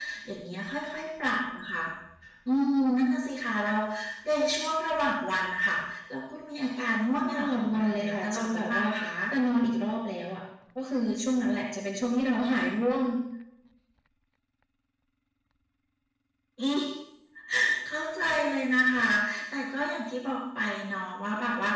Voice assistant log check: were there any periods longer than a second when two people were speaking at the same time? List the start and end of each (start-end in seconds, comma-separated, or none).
7.3-8.9